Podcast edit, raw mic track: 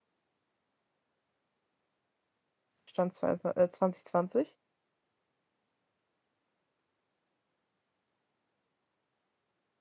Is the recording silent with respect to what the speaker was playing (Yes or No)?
Yes